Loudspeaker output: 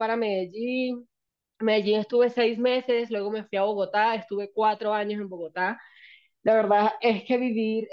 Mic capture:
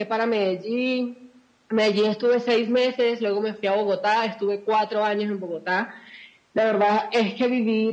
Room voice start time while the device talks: none

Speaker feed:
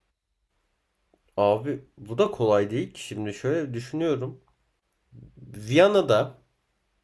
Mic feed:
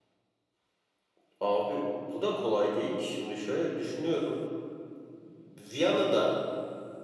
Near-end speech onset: none

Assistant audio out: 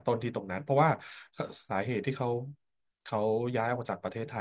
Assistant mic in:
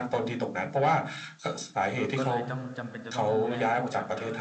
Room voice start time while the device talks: 2 s

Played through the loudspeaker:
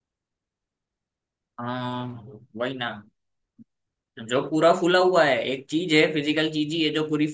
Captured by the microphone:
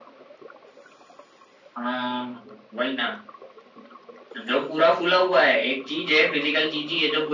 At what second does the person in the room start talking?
none

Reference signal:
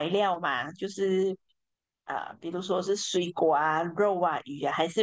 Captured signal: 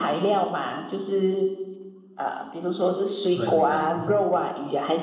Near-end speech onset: 3 s

